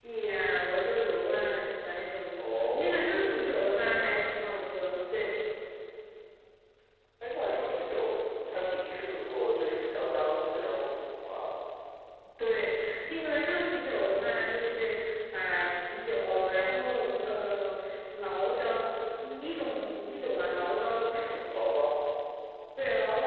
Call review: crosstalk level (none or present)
present